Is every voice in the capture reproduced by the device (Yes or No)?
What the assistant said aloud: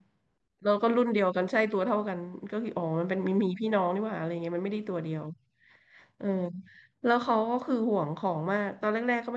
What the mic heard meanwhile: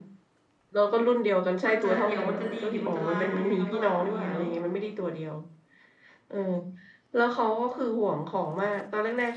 No